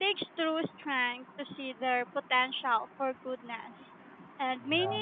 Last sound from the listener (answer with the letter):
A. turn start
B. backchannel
B